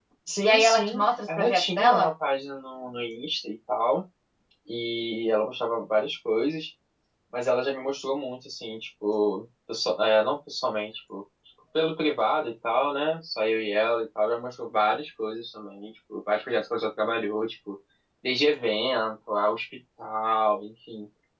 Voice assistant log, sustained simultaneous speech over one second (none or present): present